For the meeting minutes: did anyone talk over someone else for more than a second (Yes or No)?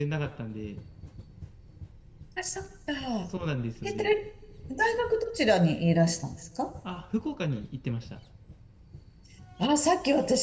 No